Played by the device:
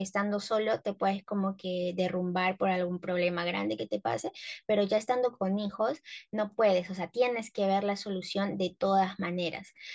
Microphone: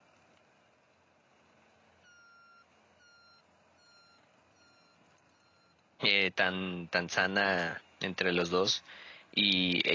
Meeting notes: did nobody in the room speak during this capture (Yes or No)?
No